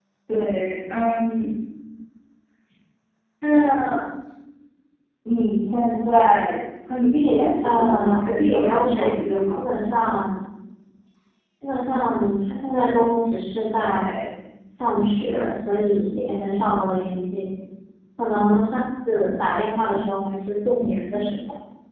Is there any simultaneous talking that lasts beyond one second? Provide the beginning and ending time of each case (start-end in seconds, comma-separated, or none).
7.6-9.6